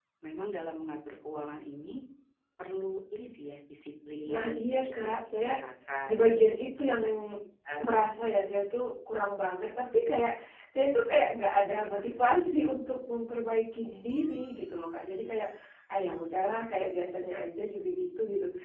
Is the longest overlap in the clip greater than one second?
Yes, from 4.3 s

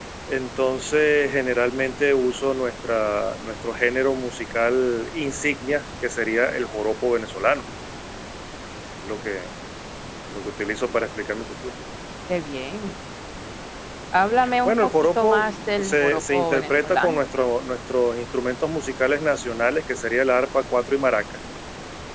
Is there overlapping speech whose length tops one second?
Yes, from 14.6 s

